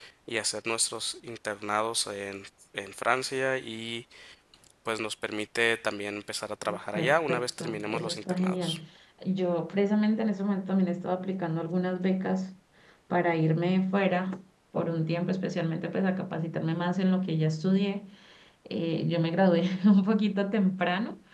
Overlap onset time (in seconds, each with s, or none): 6.7 s